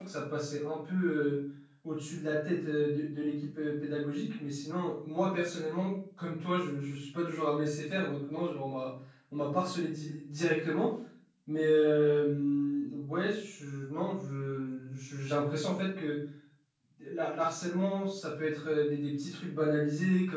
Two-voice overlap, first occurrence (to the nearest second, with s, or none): none